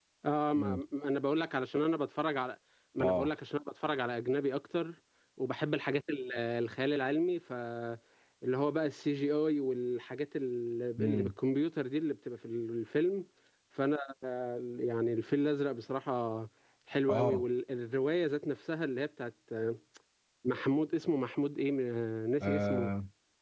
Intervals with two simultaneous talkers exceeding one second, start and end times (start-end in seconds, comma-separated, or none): none